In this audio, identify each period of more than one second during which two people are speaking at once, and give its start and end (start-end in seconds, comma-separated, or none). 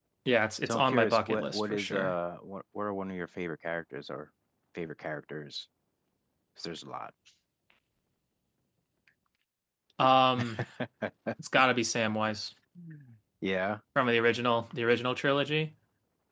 0.6-2.1